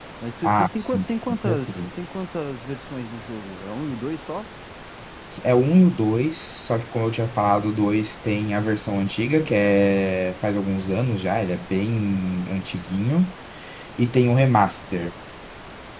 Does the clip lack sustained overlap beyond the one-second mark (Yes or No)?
No